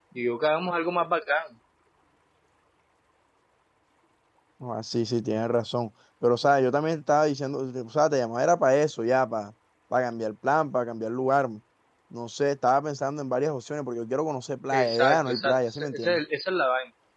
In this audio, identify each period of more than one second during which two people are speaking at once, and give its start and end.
14.7-16.2

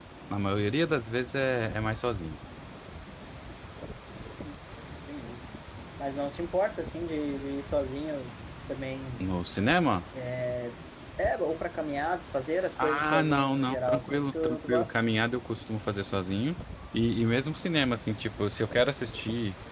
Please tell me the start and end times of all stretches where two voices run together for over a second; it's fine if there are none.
12.8-14.9

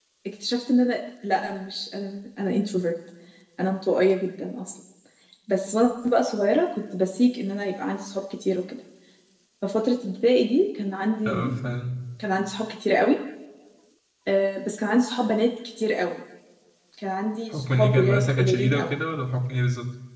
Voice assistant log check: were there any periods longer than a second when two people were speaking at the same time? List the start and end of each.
17.5-18.9

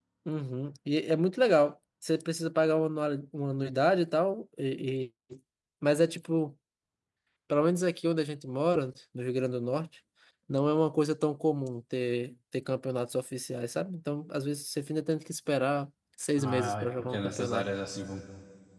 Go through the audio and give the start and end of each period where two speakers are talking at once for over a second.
16.4-17.6

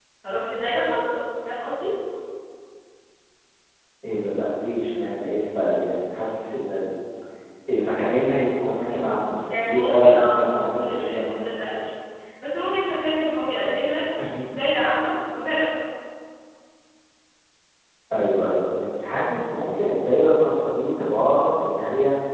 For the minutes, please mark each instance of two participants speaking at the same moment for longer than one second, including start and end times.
9.5-11.6

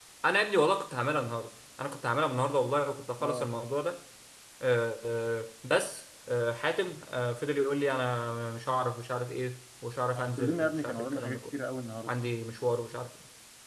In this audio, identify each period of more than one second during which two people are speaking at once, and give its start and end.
10.1-11.6

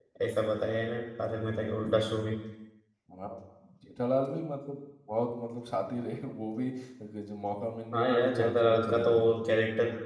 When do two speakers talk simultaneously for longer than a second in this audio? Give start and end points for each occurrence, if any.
7.9-9.4

